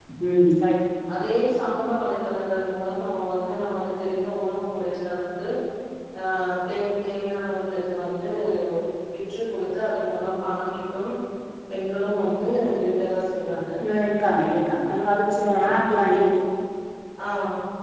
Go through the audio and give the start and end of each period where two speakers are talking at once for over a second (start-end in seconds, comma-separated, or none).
none